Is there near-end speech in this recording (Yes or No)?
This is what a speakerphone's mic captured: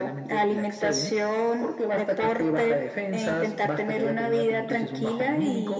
No